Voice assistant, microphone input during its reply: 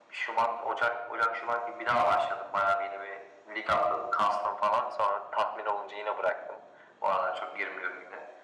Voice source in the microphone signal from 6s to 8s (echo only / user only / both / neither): echo only